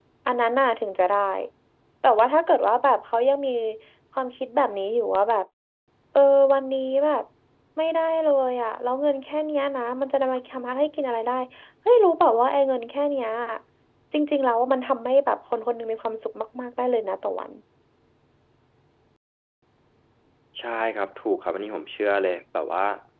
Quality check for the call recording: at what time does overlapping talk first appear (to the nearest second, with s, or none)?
none